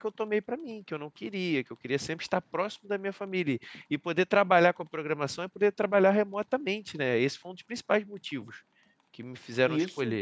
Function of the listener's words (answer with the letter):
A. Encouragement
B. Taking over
B